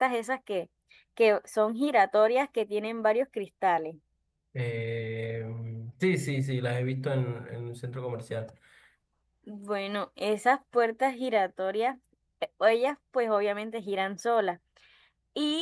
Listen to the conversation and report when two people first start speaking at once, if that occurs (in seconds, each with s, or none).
none